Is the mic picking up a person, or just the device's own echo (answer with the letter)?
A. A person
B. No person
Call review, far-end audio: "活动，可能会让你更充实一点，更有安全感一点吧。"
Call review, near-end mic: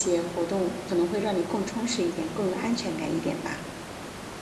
B